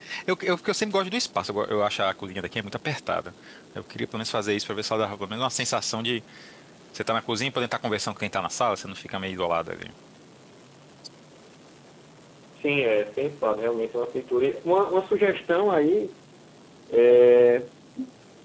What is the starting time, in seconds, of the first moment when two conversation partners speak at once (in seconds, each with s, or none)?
none